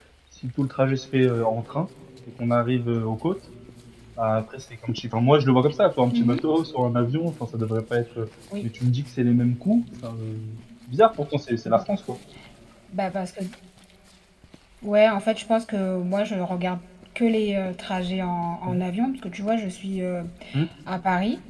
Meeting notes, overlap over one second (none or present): none